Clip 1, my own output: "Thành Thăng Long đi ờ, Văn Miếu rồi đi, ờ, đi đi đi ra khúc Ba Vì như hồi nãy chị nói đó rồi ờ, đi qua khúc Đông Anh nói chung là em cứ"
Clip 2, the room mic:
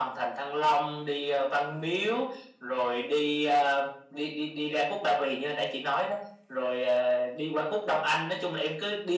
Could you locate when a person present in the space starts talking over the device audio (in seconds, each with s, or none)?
none